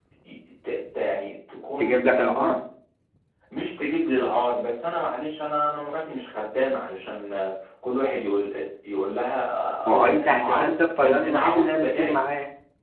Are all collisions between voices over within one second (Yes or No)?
No